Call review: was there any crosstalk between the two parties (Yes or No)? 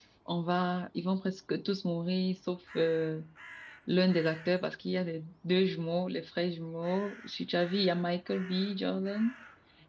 No